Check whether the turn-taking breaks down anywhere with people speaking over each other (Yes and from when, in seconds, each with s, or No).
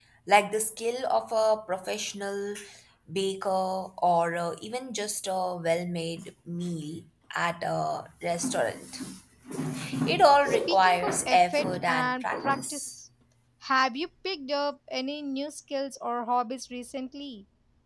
Yes, from 10.4 s